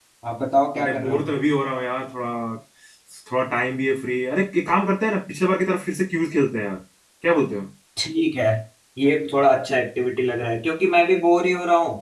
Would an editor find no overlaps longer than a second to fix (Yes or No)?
Yes